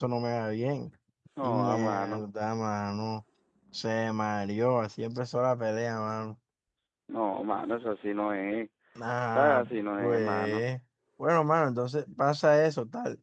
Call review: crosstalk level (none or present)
present